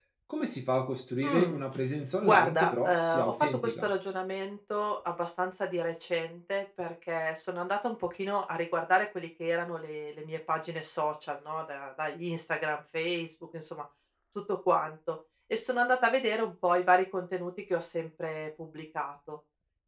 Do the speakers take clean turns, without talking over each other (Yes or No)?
No